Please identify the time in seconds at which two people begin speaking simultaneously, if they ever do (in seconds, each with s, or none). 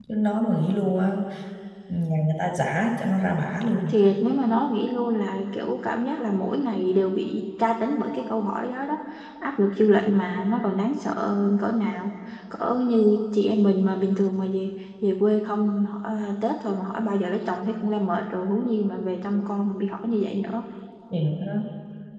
none